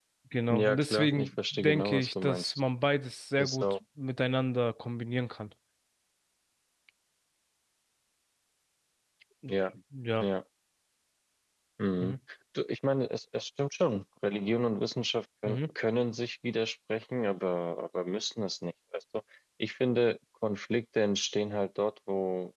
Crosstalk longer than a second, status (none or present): present